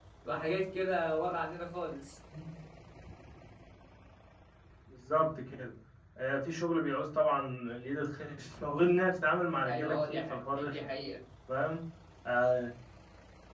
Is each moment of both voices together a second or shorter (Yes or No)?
No